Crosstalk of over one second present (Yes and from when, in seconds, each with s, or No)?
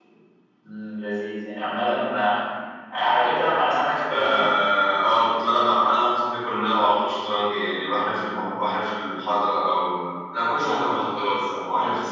No